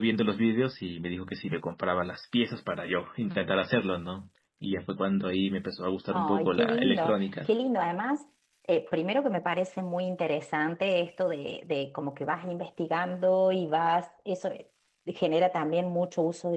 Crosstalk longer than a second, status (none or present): present